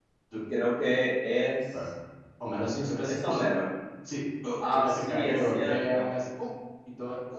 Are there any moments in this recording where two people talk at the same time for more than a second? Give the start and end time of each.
4.6-6.0

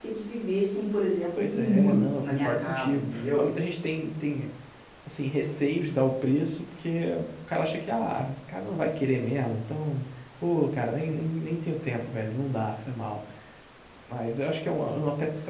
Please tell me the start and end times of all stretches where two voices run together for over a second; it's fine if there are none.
1.4-3.5

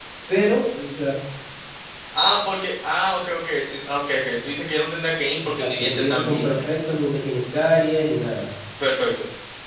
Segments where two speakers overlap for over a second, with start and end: 5.4-6.7

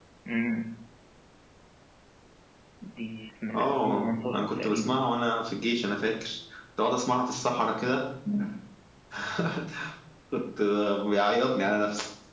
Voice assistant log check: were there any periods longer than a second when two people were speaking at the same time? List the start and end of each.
3.5-5.1

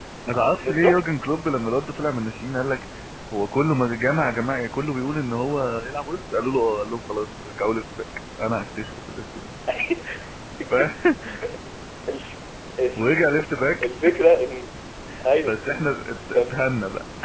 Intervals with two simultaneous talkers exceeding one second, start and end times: none

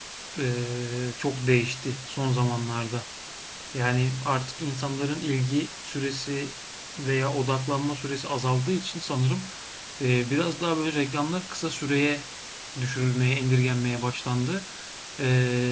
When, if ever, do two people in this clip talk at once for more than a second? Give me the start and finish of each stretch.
none

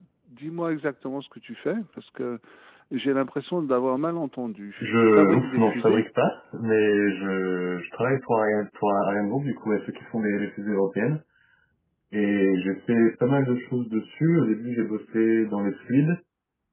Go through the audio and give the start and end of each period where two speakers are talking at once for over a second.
4.8-6.0

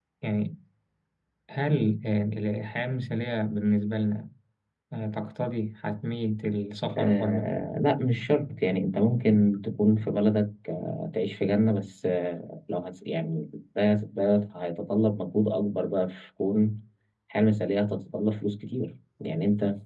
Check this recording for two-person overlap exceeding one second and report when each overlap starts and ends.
none

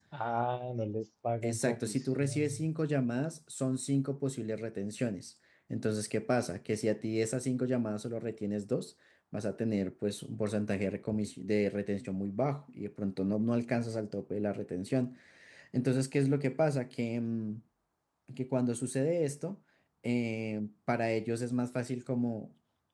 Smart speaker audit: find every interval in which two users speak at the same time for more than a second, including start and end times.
1.4-2.7

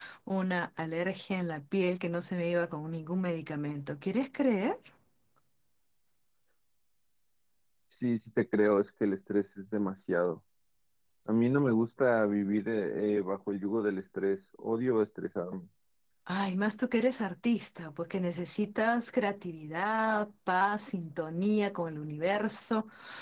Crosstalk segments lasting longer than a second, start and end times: none

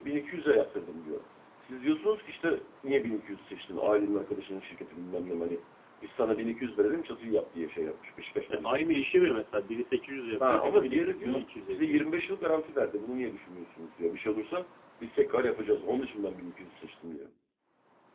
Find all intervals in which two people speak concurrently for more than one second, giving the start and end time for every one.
10.4-12.0

